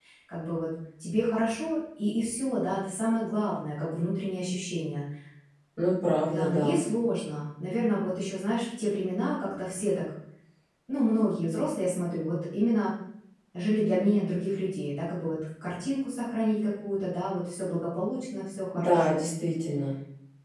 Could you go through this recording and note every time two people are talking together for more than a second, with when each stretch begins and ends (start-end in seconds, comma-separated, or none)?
none